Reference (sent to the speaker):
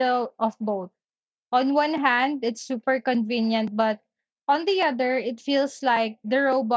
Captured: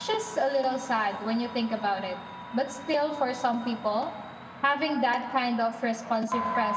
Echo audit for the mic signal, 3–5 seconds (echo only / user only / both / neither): user only